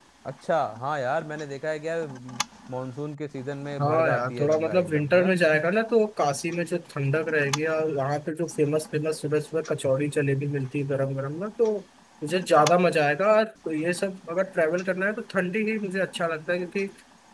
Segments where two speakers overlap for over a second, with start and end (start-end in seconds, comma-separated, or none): 3.8-5.3